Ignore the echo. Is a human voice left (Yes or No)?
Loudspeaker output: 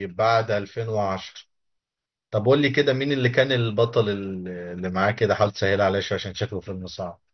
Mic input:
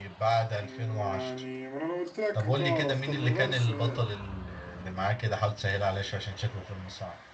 Yes